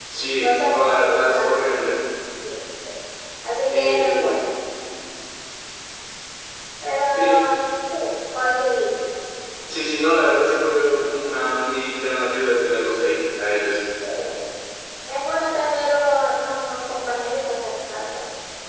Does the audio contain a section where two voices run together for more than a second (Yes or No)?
Yes